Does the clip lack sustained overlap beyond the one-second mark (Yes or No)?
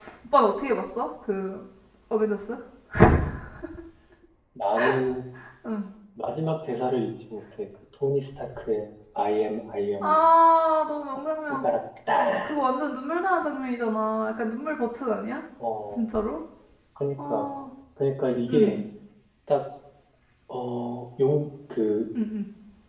Yes